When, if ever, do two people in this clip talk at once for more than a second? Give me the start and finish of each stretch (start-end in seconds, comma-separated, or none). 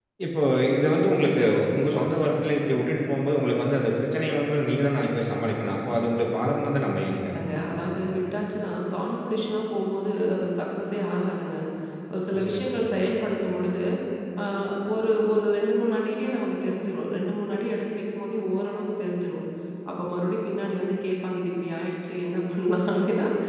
none